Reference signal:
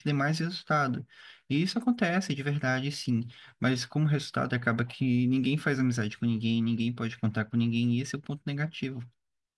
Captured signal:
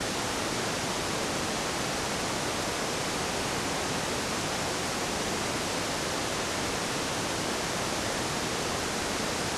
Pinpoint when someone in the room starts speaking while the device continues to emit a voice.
none

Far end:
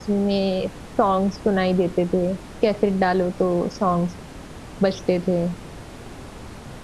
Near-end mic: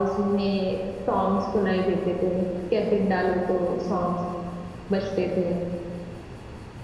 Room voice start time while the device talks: none

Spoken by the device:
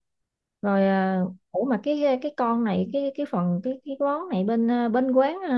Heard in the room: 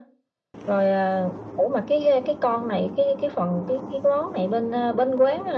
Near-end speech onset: none

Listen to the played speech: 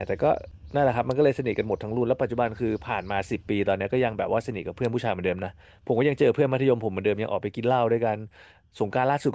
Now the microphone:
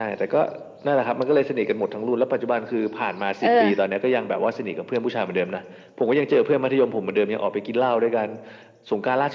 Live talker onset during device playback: 3.4 s

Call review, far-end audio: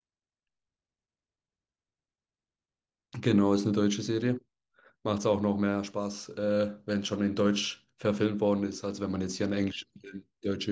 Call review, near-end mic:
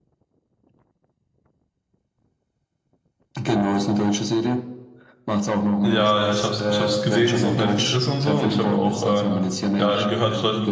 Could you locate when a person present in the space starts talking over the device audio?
5.8 s

